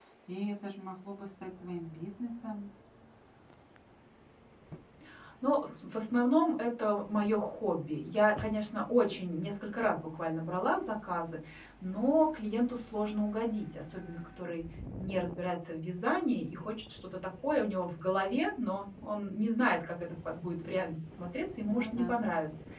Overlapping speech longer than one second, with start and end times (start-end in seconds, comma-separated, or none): none